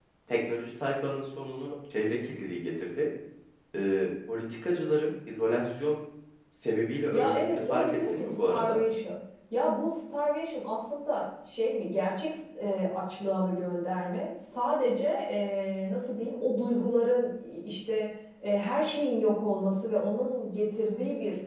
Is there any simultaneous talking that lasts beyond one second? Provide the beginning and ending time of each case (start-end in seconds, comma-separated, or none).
7.1-8.8